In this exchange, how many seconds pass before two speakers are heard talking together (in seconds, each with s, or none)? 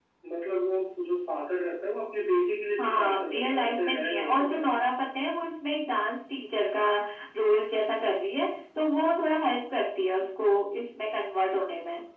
2.8 s